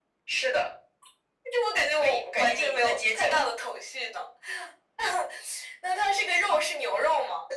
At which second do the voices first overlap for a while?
1.9 s

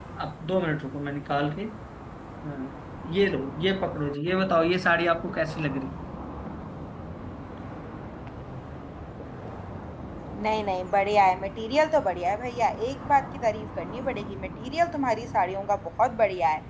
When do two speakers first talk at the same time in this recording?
none

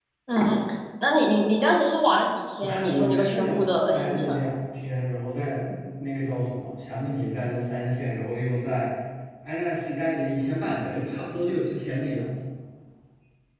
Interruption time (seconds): 2.6 s

